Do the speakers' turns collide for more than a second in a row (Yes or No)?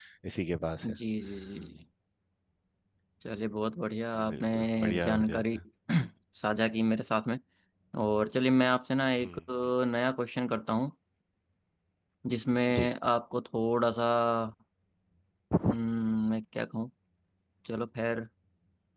Yes